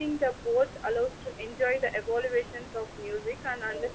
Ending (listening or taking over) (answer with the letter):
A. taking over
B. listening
A